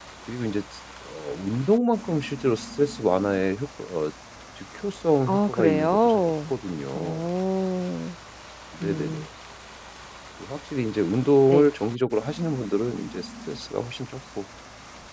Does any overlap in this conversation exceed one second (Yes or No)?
Yes